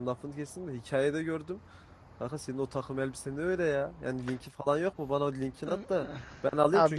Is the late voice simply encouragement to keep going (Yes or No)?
Yes